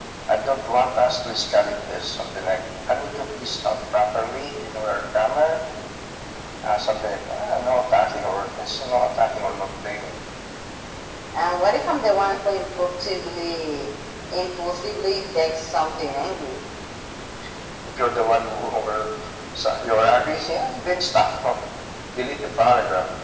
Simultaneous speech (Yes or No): No